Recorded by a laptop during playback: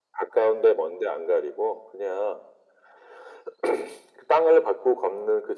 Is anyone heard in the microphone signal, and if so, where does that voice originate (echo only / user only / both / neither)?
echo only